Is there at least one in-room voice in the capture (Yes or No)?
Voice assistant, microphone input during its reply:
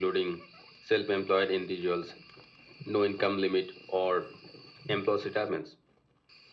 No